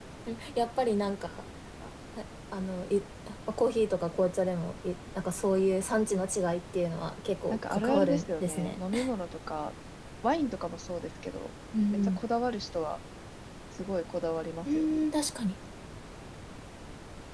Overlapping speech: Yes, from 7.5 s

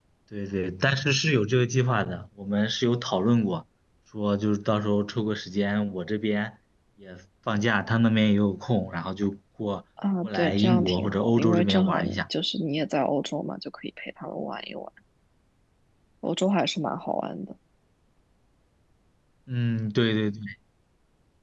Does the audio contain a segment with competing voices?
Yes, from 10.2 s

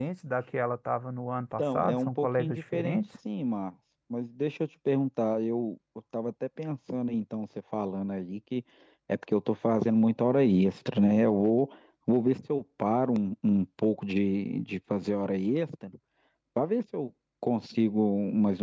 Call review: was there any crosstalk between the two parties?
Yes, from 1.6 s

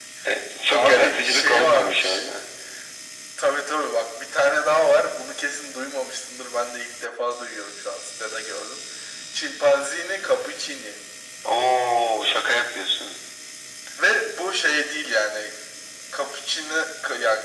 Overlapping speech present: Yes, from 0.7 s

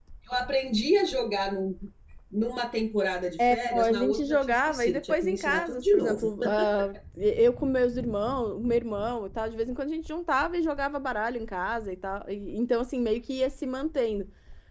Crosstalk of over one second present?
Yes, from 3.4 s

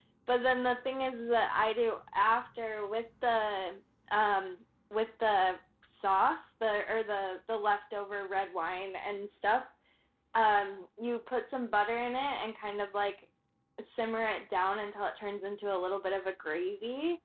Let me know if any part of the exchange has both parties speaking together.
No

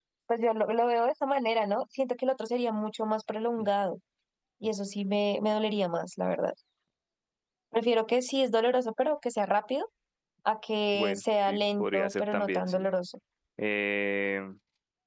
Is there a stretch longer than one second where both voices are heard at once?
Yes, from 10.9 s

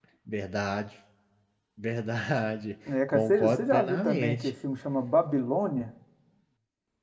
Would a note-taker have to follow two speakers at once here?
Yes, from 3.1 s

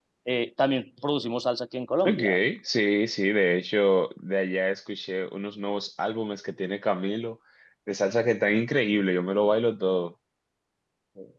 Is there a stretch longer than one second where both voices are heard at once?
No

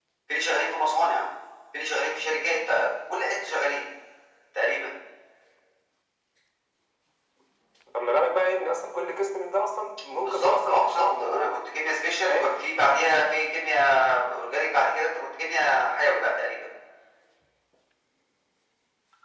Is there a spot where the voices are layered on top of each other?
Yes, from 10.2 s

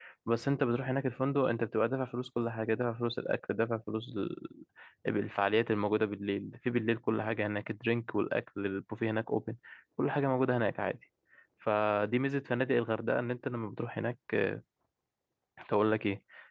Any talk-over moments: No

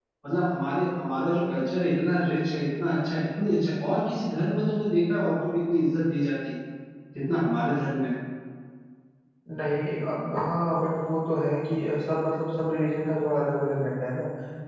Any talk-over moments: No

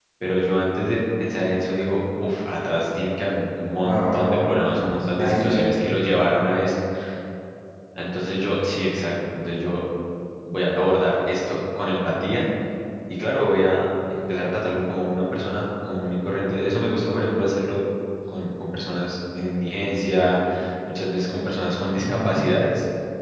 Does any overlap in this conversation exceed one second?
Yes, from 3.8 s

